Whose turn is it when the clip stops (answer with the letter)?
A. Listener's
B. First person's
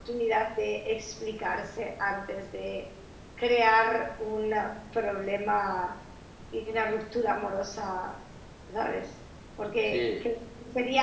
B